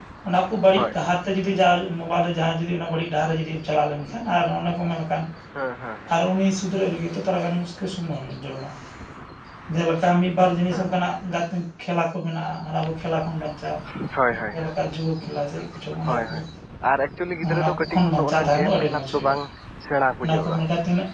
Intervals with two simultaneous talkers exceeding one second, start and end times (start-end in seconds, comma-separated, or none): 17.5-19.4